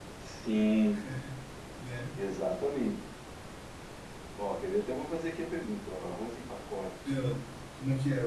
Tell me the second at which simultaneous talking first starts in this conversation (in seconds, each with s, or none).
none